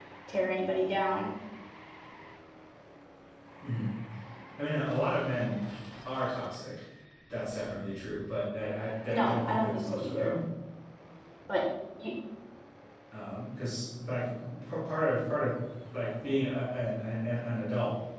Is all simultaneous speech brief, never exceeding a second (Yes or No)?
No